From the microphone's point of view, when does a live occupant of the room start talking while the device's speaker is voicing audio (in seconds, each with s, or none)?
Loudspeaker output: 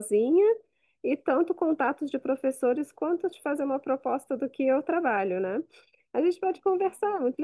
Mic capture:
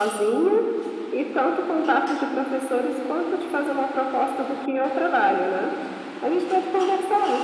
none